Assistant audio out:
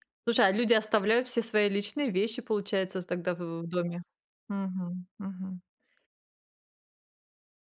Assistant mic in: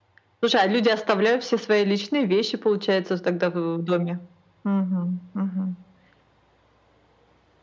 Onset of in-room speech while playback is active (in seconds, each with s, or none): none